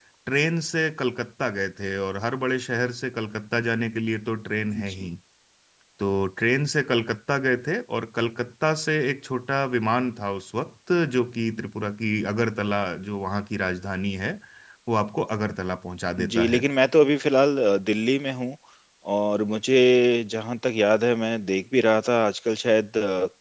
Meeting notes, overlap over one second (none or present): none